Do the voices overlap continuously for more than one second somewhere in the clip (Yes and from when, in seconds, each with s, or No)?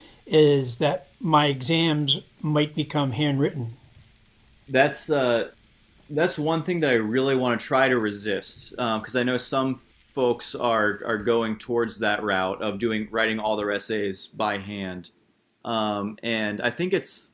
No